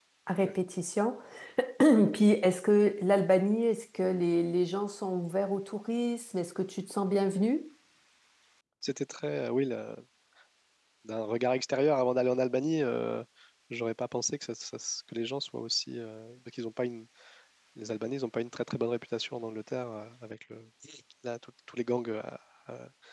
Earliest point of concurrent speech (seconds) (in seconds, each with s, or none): none